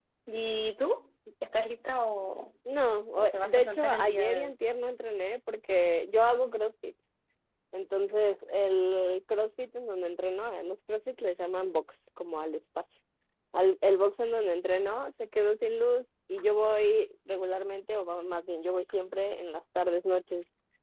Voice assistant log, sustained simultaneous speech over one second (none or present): present